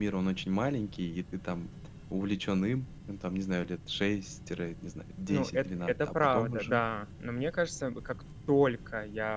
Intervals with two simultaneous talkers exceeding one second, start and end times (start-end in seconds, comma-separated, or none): 5.3-6.8